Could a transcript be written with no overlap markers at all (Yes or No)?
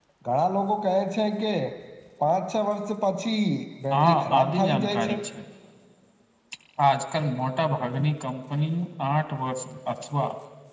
No